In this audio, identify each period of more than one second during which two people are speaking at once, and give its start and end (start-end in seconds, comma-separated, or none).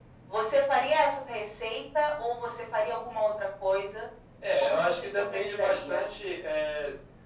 4.6-6.1